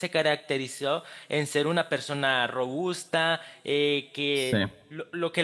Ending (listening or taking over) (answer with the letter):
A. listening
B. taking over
A